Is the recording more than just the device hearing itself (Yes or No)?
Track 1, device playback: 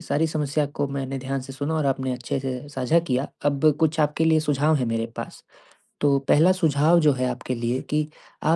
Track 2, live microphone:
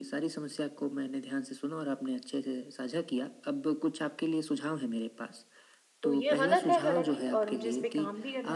Yes